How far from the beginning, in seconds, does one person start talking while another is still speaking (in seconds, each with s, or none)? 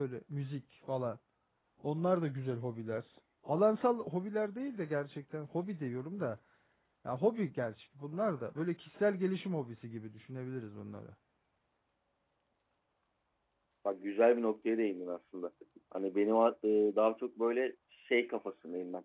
none